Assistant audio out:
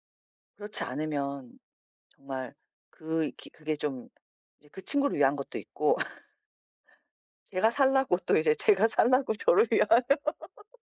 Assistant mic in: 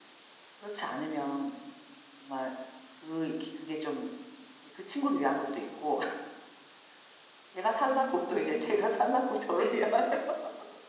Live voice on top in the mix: No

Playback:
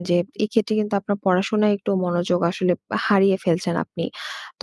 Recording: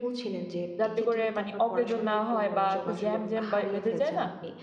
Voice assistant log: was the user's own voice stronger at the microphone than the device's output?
Yes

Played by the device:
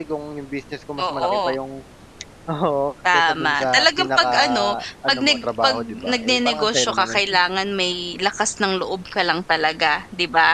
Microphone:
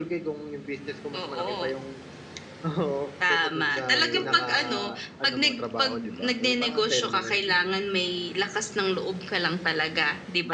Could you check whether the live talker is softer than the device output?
Yes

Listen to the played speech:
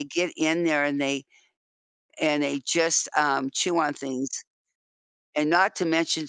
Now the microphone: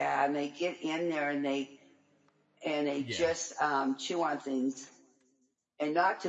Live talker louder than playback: No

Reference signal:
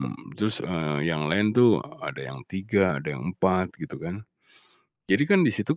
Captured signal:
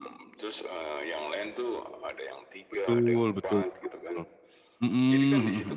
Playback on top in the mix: No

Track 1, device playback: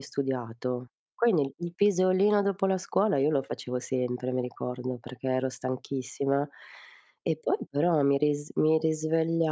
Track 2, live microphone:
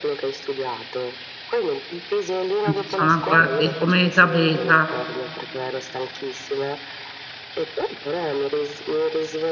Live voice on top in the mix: Yes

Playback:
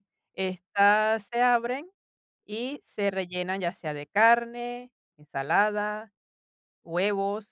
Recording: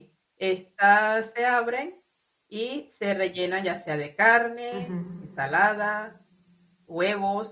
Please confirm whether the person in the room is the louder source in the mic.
No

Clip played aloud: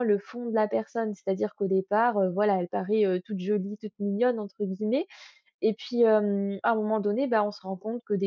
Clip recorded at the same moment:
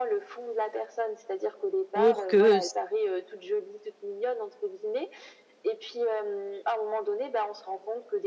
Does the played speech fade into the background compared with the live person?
Yes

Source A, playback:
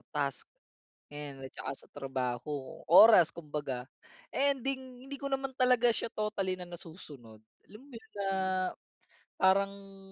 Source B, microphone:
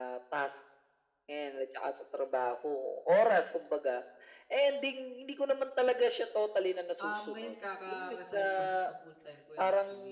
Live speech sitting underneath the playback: Yes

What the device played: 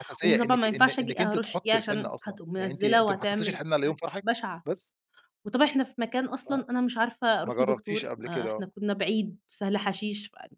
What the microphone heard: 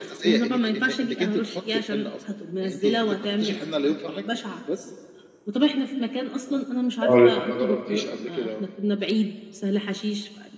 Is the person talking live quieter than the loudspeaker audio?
No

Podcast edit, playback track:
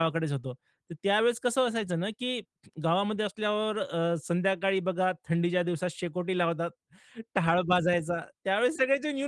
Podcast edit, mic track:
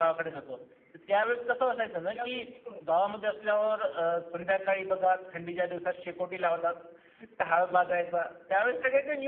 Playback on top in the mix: Yes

